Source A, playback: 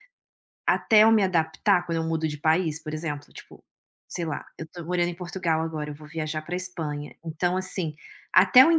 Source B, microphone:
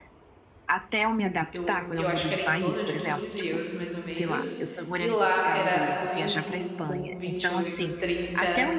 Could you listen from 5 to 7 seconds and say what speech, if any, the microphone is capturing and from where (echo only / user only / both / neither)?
both